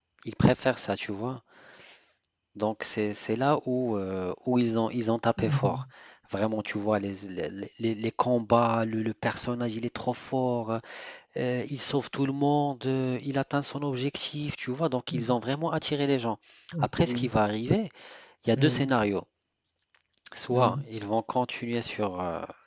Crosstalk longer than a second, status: none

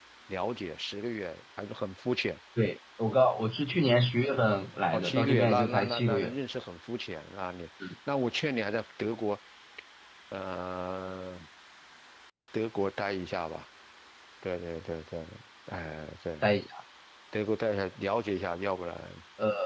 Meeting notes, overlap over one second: present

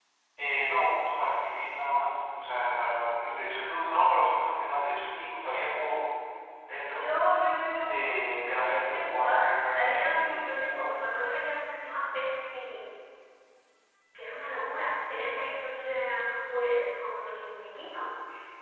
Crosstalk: present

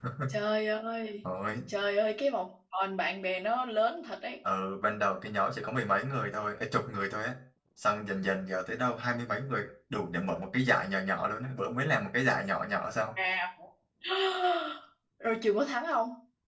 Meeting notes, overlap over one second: none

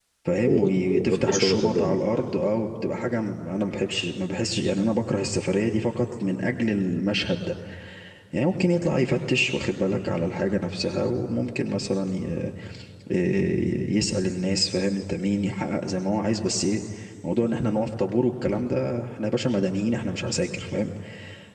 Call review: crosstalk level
present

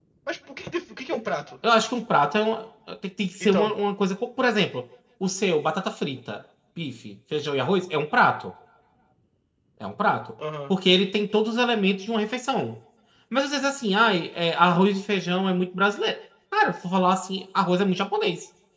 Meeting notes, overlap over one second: none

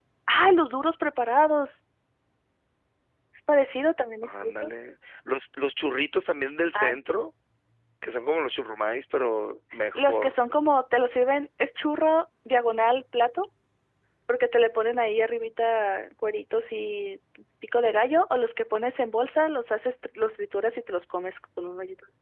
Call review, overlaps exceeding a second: none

